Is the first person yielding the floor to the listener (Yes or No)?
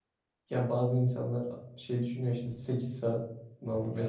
No